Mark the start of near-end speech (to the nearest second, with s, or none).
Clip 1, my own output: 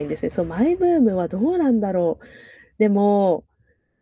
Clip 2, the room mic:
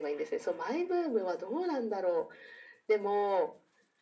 none